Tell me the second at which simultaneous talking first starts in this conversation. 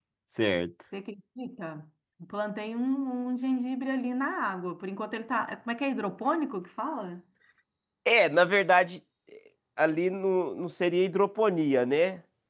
none

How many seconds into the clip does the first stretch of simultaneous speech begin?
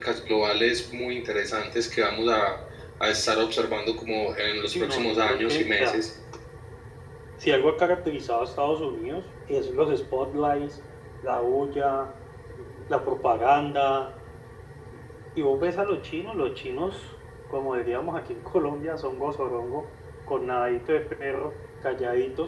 4.7 s

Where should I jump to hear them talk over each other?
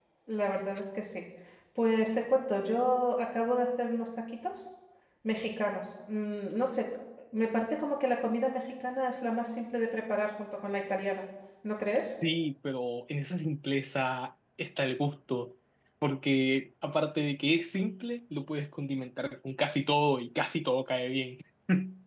none

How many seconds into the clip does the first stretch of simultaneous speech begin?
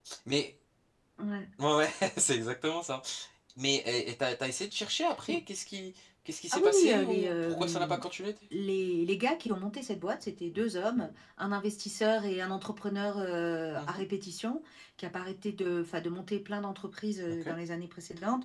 6.5 s

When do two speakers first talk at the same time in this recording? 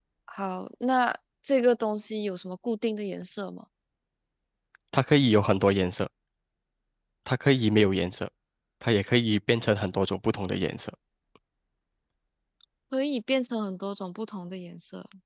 none

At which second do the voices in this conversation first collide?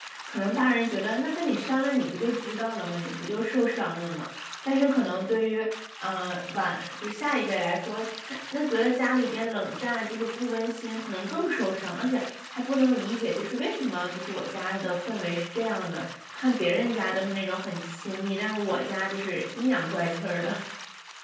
none

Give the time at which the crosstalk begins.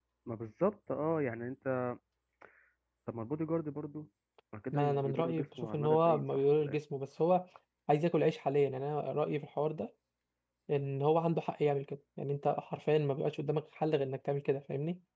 4.7 s

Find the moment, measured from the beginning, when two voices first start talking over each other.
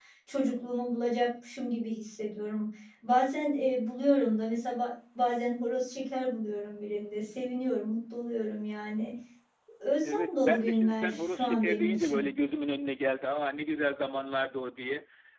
10.0 s

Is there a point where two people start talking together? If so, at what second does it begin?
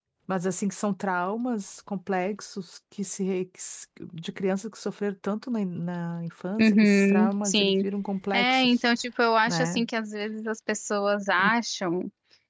6.6 s

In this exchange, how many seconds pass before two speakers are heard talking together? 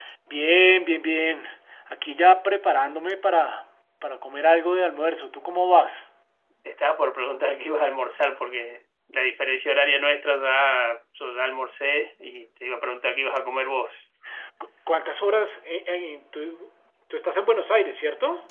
none

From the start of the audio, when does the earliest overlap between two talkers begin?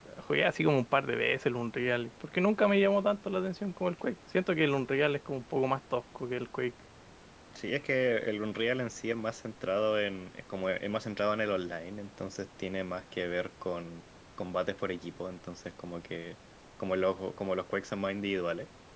none

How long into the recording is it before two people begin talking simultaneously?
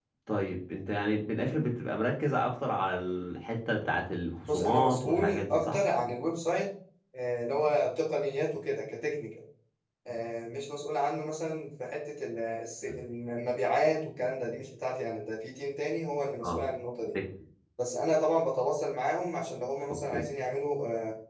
4.5 s

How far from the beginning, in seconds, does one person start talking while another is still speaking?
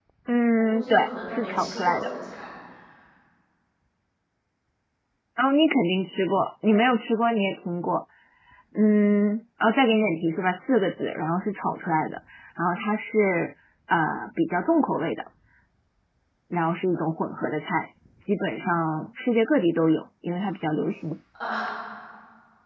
0.6 s

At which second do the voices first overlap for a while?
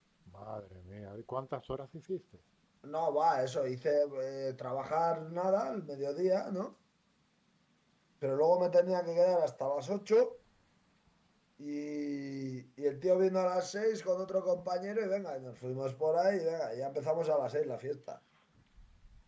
none

